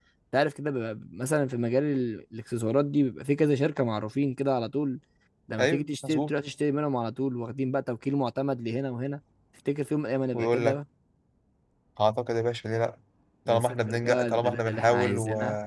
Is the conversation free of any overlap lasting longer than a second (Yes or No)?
No